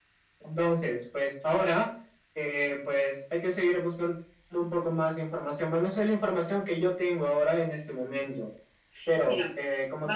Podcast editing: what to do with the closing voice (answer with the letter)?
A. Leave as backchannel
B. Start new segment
B